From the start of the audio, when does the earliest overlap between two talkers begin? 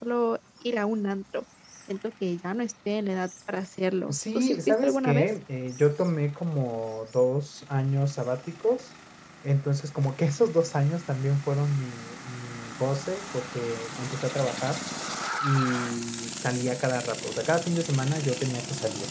4.1 s

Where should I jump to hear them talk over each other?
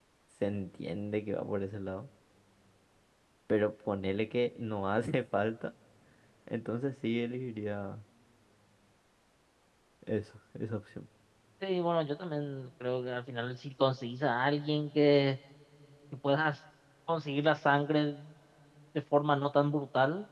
none

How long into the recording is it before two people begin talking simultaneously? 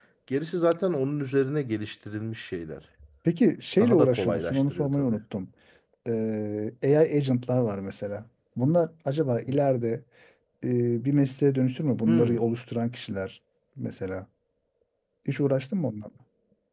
3.8 s

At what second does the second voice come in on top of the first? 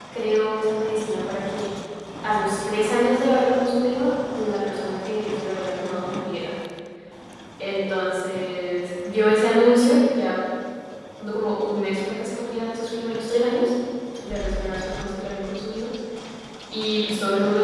none

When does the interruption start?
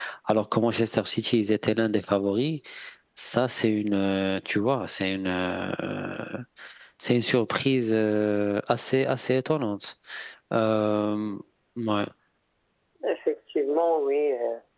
none

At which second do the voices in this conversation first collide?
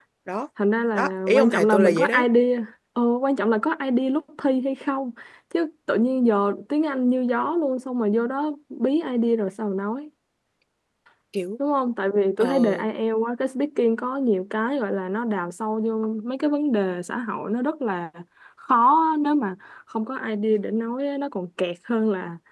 0.9 s

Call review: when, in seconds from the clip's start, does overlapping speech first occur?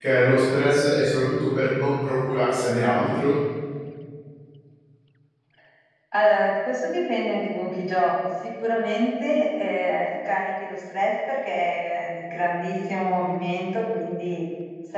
none

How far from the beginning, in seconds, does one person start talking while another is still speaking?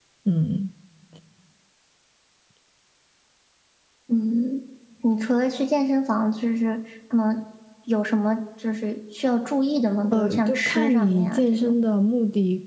10.1 s

